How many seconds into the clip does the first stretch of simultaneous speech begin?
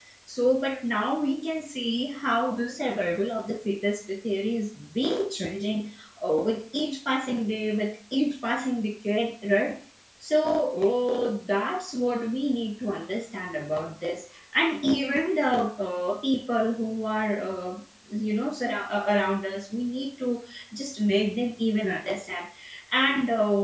none

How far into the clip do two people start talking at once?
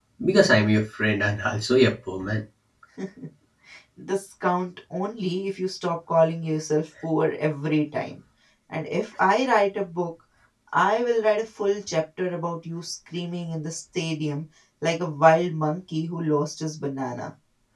none

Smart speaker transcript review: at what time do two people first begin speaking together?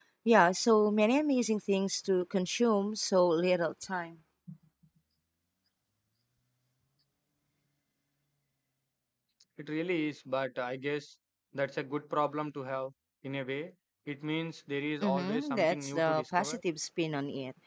15 s

